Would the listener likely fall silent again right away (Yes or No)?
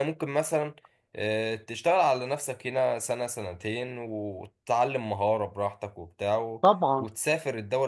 Yes